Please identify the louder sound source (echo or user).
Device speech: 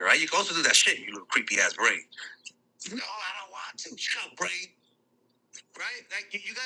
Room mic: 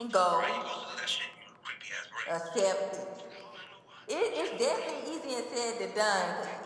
user